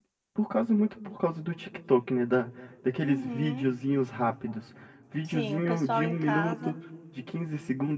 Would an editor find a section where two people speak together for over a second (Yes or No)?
Yes